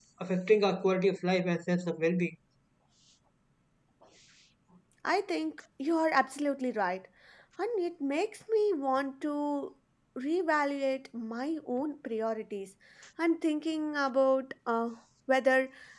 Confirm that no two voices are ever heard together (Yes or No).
Yes